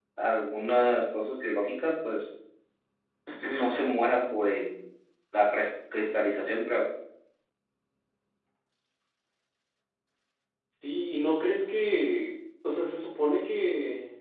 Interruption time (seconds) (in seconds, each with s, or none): none